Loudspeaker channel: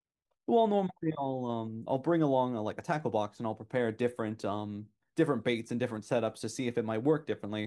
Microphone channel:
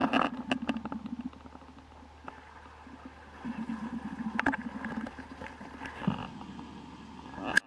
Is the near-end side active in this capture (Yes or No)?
No